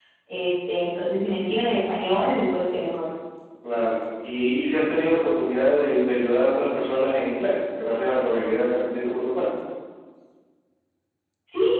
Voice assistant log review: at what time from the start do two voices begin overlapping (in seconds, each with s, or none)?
none